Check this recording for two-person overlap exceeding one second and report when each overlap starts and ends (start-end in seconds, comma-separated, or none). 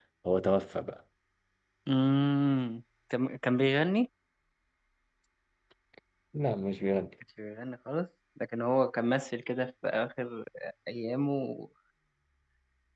none